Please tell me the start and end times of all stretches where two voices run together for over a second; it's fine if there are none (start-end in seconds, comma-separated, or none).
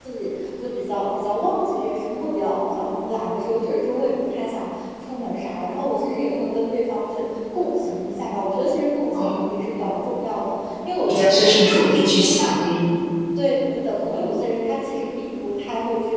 11.1-12.6